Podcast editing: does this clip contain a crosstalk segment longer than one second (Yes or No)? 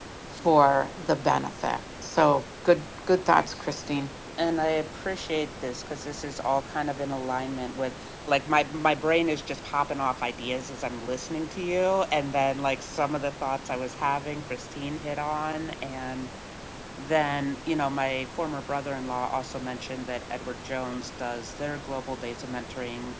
No